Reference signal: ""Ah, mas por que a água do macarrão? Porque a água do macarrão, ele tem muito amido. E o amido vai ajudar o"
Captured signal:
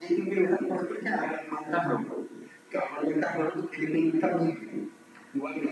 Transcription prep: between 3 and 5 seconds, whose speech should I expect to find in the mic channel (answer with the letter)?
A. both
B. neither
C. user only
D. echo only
D